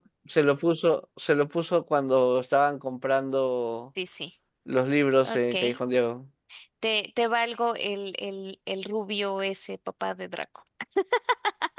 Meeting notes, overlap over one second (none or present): none